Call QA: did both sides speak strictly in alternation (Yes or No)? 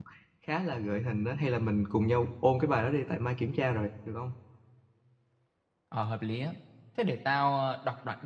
Yes